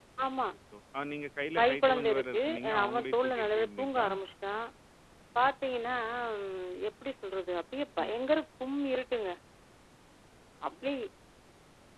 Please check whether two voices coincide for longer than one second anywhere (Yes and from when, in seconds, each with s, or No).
Yes, from 1.6 s